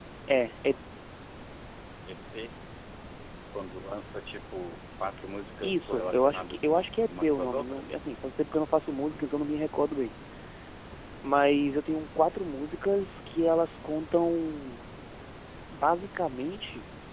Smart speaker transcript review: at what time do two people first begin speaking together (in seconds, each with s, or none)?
5.6 s